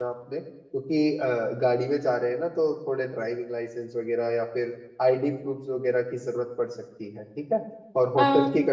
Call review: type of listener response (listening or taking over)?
listening